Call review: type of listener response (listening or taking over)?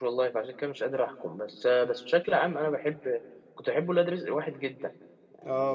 taking over